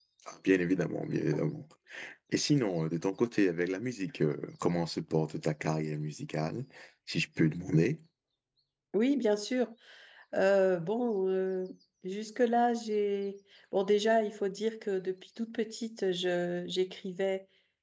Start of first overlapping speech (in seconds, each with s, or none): none